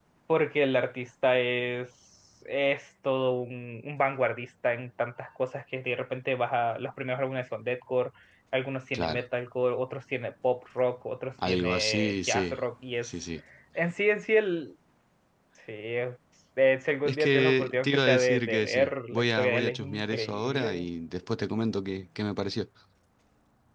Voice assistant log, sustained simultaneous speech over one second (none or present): present